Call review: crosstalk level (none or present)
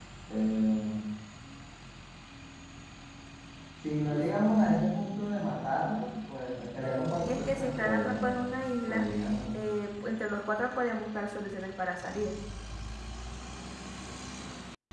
present